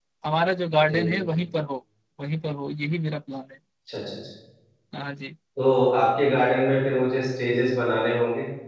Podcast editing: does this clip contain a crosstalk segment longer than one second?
No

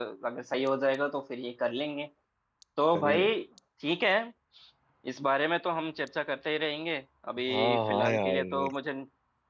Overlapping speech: Yes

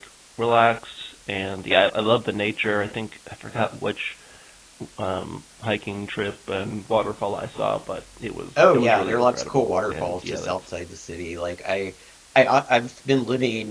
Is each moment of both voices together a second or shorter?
No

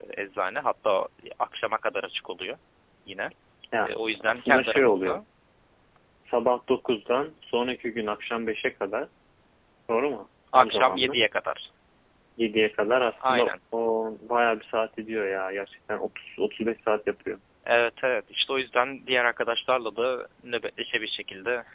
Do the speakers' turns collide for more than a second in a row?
Yes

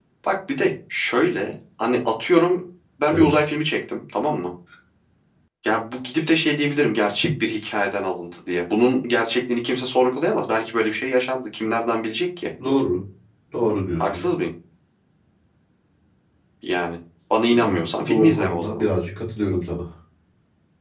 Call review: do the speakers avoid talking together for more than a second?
No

